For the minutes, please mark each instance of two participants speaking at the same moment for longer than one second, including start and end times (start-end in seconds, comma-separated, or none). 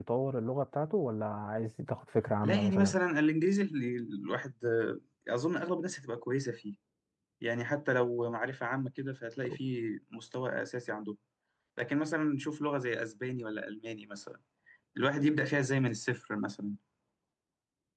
none